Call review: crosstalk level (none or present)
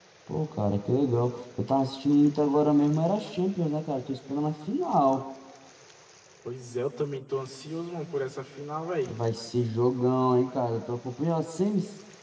none